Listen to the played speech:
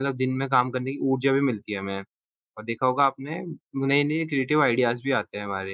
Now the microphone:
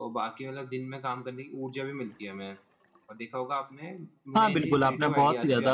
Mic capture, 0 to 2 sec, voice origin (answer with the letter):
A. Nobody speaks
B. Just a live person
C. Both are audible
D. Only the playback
D